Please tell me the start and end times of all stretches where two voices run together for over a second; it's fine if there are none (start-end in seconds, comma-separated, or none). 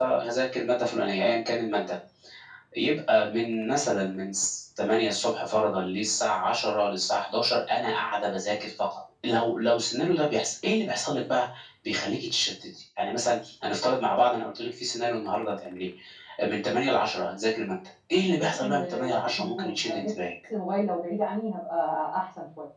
18.4-20.1